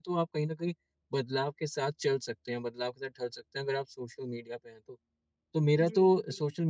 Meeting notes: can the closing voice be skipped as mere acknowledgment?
Yes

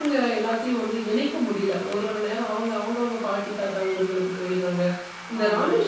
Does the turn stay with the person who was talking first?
Yes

